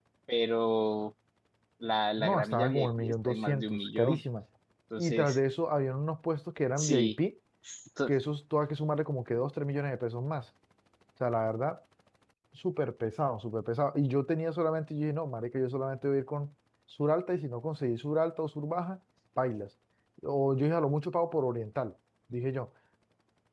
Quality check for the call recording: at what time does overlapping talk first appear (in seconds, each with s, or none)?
2.2 s